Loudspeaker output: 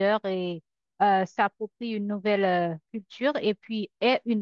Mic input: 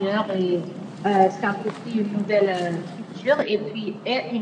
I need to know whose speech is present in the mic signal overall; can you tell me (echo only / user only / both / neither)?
echo only